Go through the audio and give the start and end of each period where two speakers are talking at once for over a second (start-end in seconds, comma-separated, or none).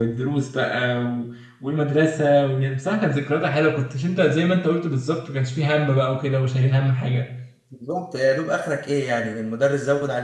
none